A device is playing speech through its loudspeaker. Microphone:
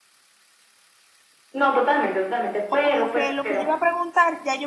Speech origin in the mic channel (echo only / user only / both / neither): both